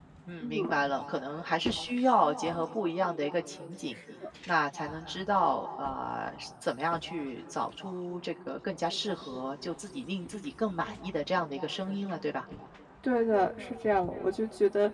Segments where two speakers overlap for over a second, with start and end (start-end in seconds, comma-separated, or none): none